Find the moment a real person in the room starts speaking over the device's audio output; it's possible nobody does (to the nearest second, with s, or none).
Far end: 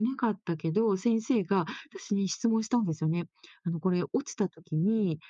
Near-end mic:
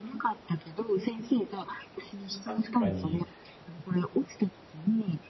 2 s